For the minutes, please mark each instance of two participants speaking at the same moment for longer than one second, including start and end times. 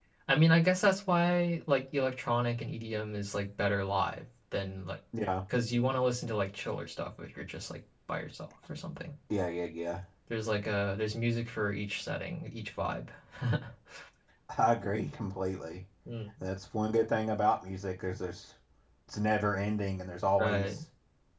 none

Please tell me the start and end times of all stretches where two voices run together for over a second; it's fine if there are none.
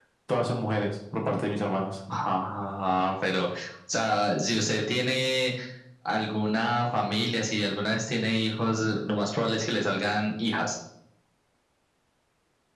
none

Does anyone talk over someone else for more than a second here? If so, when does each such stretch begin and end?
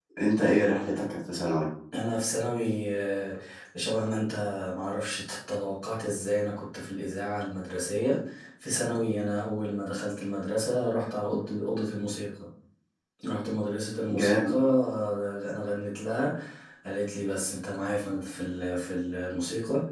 none

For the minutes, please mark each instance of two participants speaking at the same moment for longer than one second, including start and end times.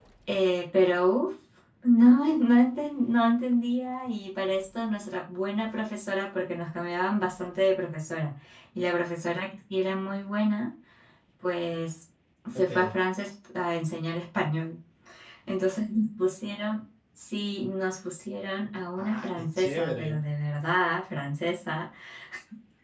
19.0-20.2

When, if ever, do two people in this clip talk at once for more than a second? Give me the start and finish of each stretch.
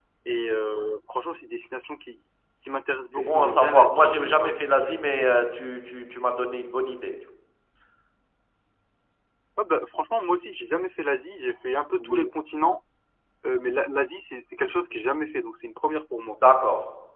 3.2-4.6

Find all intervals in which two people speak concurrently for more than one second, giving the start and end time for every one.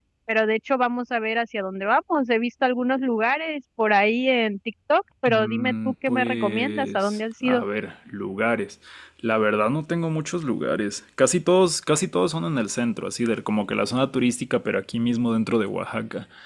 5.3-7.6

